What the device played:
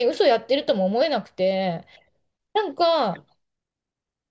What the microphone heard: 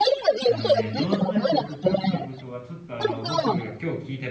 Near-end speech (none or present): present